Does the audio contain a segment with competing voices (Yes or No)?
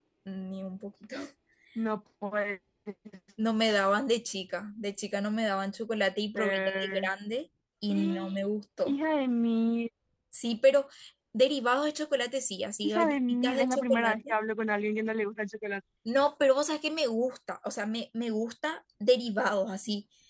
Yes